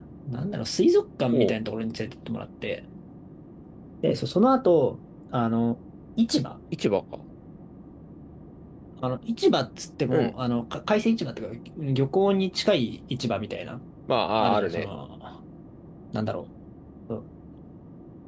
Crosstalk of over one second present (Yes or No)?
No